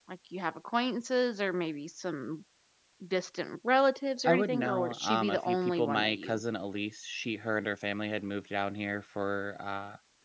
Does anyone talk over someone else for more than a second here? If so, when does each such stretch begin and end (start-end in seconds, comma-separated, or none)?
4.2-6.4